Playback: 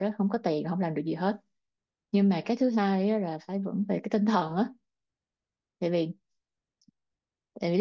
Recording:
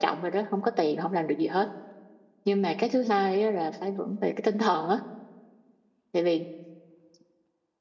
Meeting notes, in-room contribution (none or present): none